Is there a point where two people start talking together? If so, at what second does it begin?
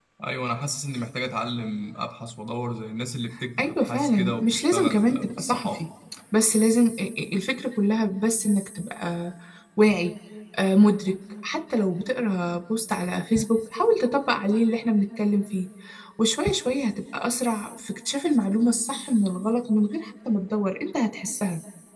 3.6 s

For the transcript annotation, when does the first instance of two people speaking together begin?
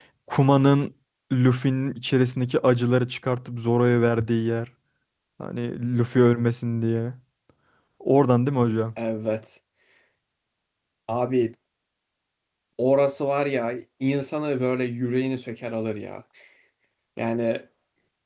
none

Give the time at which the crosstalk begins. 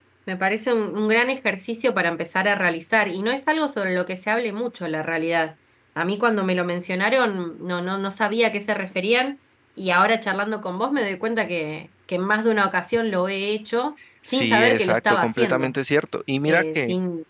14.2 s

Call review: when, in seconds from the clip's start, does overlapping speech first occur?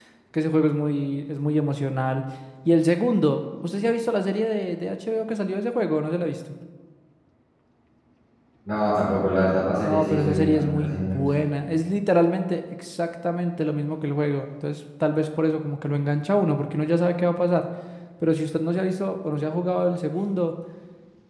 9.8 s

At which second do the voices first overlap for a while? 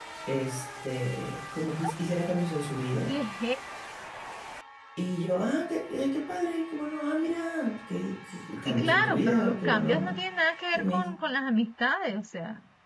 8.7 s

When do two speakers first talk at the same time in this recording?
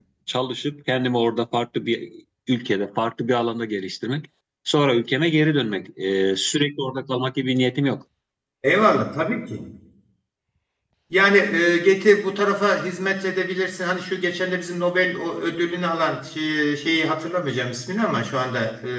none

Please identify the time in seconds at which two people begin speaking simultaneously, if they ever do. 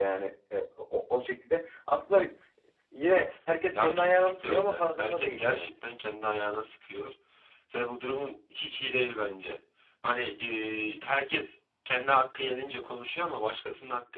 3.8 s

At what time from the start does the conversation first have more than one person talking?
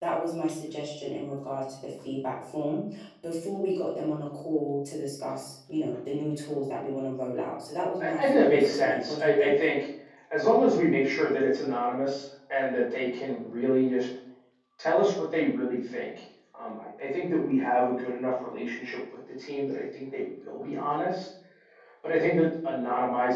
8.0 s

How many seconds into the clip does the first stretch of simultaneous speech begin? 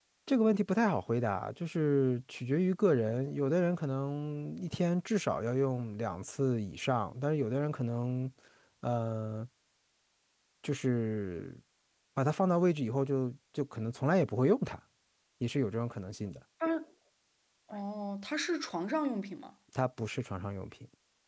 none

